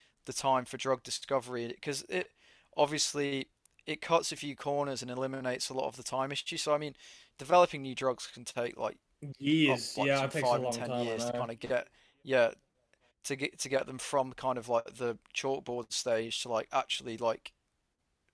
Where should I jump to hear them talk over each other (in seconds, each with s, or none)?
9.7 s